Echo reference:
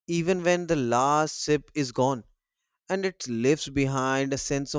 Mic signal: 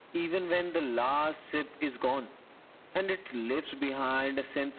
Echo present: Yes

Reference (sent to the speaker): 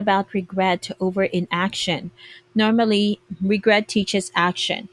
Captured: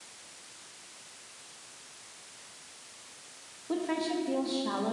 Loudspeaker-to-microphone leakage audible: No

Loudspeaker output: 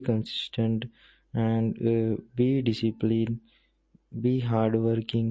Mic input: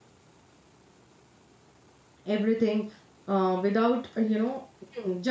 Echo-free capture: Yes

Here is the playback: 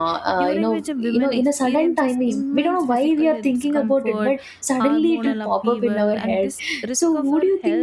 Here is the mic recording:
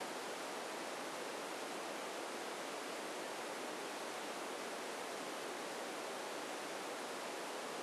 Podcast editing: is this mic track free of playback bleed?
Yes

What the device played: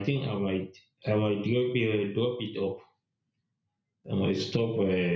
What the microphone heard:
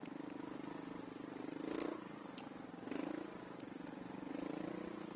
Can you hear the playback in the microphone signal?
No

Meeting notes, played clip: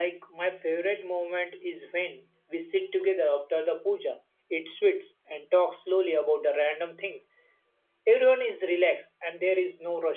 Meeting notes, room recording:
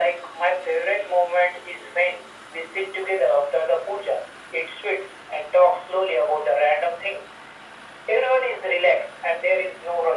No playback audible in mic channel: No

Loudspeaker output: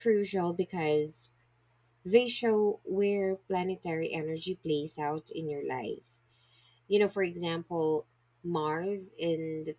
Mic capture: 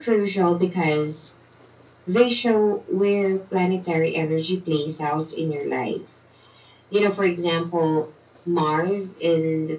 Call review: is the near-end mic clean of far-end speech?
No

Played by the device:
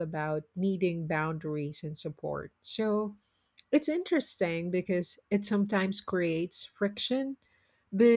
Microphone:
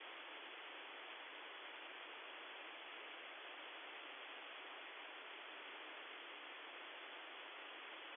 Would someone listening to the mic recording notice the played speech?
No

